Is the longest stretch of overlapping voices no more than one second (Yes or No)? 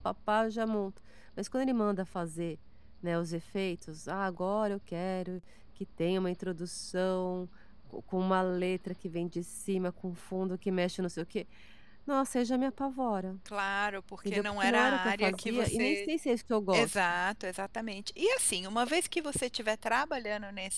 No